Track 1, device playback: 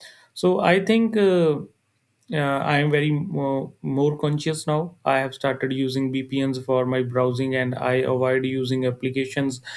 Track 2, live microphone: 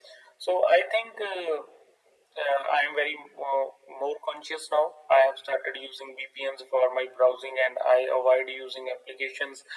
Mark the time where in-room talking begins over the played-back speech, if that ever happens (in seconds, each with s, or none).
none